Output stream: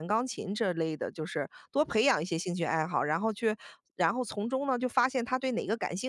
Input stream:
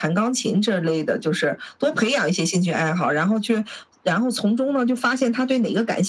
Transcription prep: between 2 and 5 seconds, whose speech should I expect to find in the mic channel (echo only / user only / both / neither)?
echo only